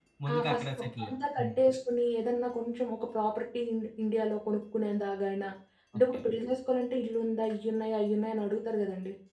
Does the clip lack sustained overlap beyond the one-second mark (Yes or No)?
No